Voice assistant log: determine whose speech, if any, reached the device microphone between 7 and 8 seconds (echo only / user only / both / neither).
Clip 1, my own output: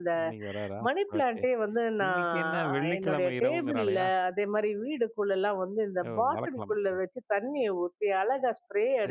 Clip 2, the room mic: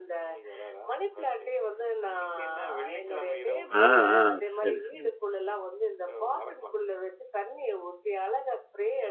echo only